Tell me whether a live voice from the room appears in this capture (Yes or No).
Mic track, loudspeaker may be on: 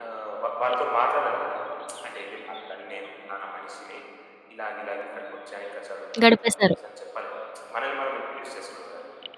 Yes